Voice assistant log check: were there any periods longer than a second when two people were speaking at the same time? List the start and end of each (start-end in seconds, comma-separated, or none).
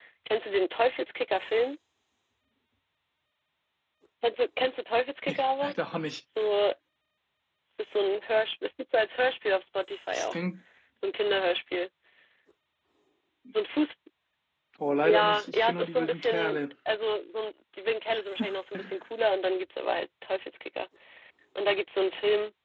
15.0-16.6